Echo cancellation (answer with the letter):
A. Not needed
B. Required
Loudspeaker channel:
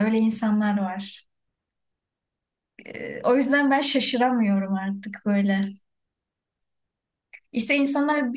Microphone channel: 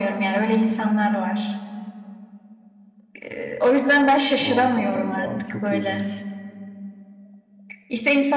B